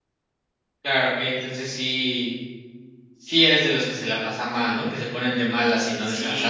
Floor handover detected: Yes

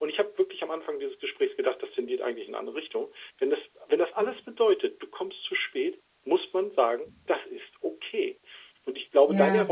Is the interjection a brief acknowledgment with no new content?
Yes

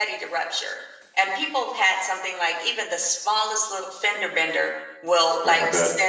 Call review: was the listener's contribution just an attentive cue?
Yes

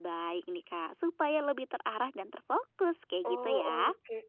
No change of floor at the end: No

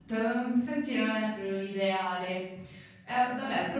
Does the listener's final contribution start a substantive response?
No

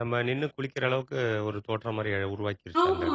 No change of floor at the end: No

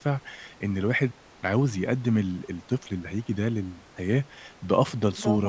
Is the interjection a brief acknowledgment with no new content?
Yes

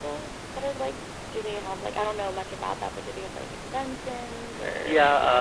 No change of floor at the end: No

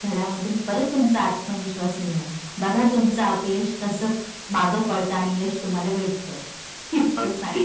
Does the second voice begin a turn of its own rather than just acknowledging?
Yes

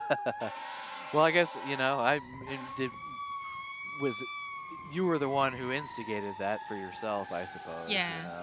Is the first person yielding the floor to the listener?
Yes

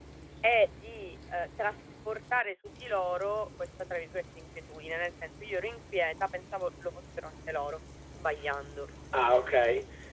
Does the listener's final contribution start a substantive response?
Yes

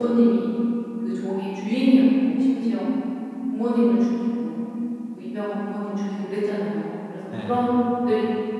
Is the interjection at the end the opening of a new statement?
No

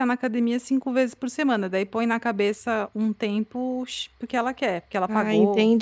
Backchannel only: No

